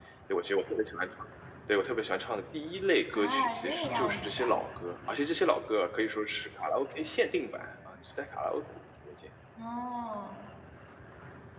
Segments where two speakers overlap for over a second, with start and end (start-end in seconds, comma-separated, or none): 3.1-4.5